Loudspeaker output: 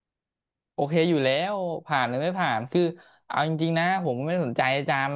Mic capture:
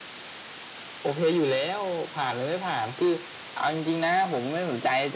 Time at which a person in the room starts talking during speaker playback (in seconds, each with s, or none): none